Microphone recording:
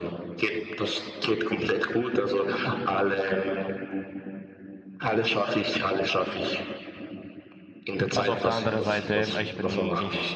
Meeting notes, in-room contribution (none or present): present